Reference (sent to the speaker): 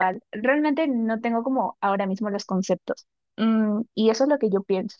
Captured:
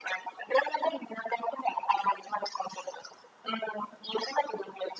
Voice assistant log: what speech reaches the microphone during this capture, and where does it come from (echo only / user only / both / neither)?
echo only